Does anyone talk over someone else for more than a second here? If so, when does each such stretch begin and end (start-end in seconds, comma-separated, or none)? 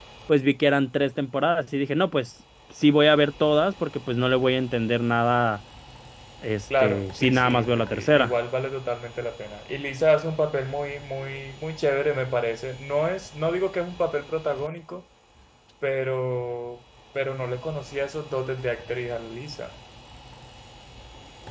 6.8-8.3